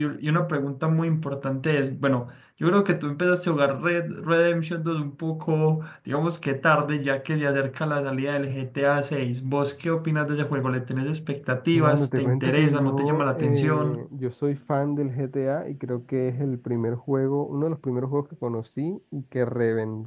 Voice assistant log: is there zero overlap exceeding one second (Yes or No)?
No